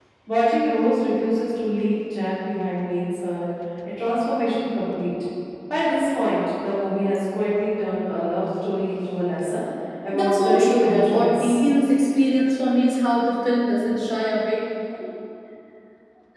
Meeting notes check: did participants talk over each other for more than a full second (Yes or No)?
Yes